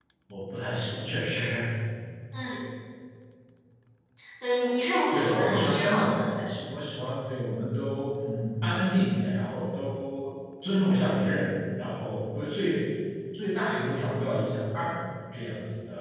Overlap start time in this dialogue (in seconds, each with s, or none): 5.1 s